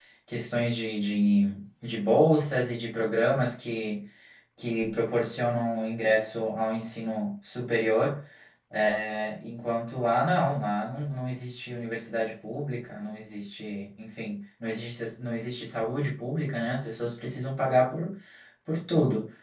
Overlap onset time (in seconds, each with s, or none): none